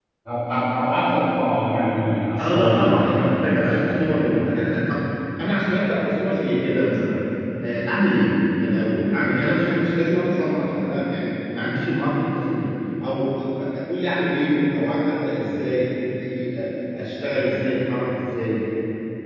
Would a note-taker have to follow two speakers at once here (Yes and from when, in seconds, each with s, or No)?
Yes, from 2.4 s